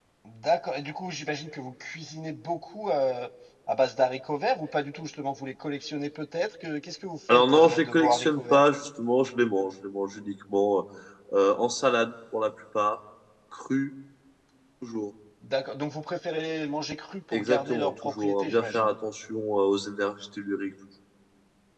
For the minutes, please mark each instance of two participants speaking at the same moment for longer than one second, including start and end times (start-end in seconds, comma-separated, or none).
7.3-8.6, 17.3-18.9